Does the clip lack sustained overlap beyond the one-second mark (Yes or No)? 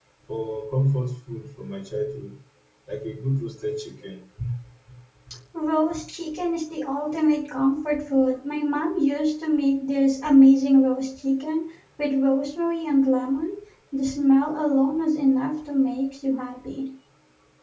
Yes